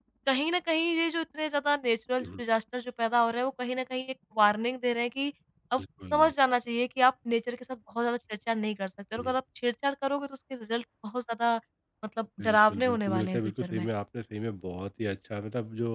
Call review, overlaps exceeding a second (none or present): present